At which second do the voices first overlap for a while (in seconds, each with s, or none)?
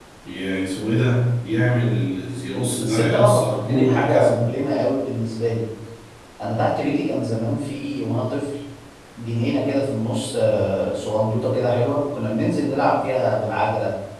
2.8 s